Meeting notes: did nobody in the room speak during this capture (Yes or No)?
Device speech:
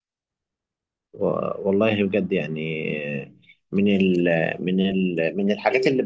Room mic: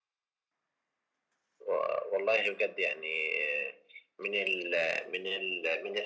Yes